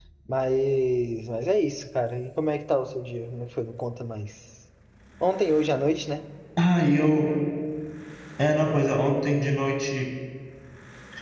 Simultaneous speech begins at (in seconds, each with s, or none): none